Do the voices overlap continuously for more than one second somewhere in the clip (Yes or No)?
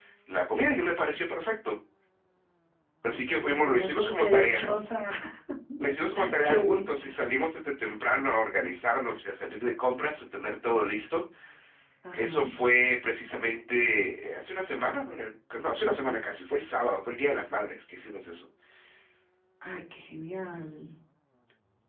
Yes